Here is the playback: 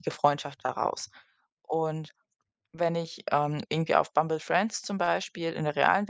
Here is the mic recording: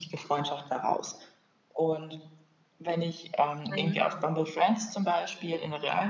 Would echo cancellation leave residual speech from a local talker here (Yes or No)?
Yes